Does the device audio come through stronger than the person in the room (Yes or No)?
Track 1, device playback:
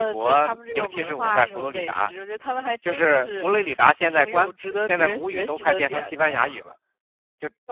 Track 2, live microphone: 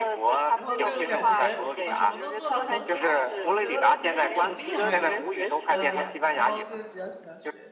Yes